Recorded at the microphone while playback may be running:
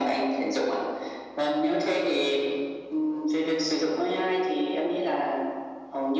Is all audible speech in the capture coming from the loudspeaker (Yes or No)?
Yes